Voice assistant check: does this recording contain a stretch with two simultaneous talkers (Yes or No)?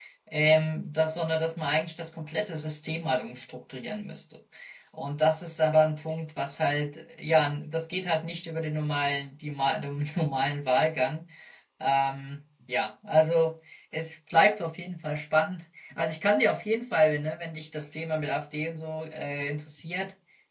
No